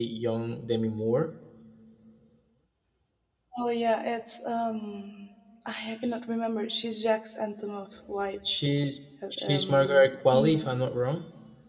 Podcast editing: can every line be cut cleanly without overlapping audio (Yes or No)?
No